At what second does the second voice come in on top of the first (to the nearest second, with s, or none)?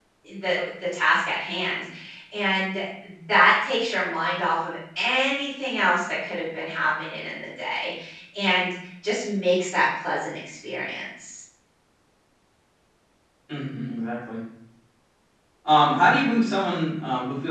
none